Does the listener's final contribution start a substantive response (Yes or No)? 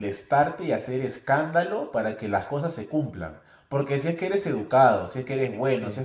No